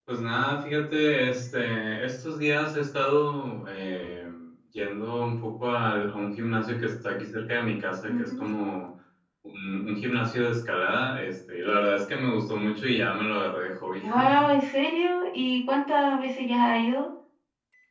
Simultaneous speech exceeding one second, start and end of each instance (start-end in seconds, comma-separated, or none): none